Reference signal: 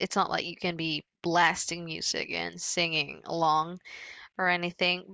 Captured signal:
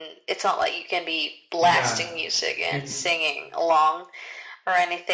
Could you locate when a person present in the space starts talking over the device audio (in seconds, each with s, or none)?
1.6 s